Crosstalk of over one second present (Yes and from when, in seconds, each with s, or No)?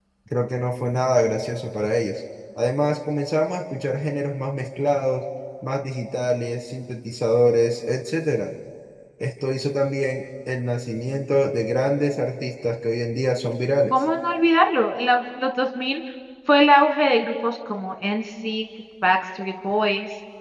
No